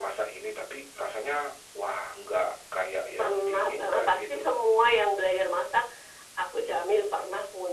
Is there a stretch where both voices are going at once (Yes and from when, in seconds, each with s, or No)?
Yes, from 3.2 s